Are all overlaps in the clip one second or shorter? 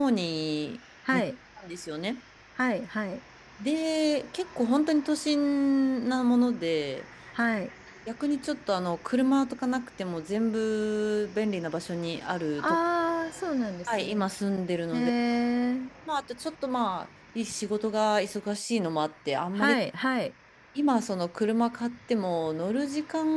Yes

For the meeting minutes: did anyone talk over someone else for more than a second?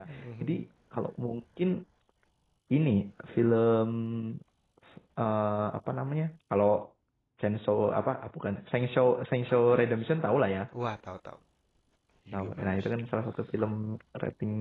No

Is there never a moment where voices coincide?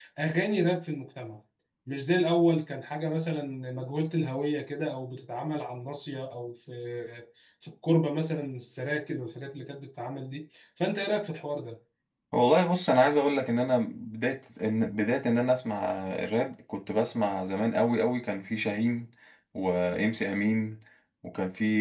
Yes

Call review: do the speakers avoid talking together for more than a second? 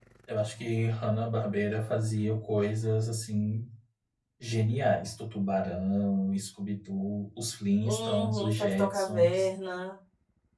No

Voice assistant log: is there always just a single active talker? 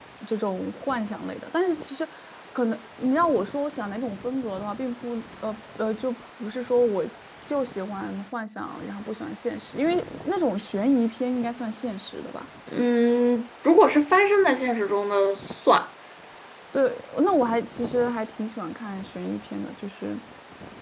Yes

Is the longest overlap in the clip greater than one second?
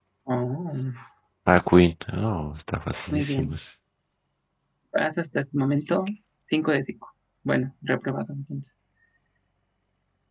No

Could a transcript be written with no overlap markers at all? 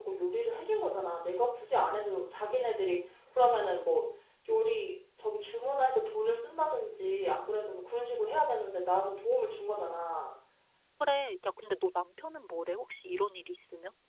Yes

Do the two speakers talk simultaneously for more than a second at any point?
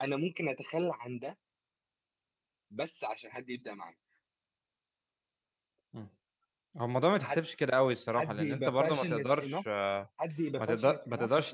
Yes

